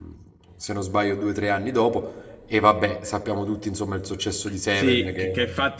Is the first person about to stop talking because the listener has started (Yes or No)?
Yes